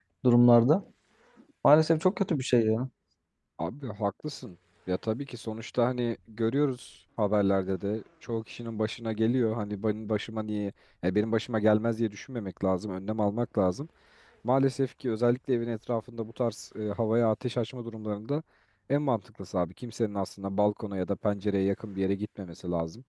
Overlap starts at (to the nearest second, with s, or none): none